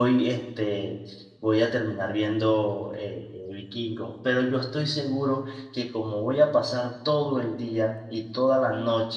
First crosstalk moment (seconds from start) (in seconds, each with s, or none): none